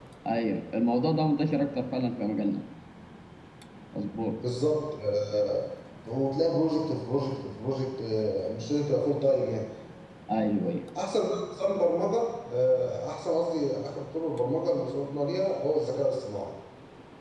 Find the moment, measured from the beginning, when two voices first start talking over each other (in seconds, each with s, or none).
none